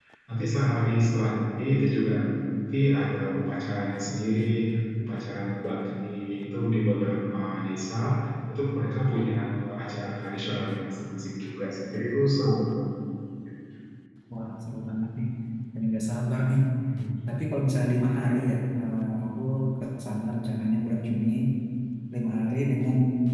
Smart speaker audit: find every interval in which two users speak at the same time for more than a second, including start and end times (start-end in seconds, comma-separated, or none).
none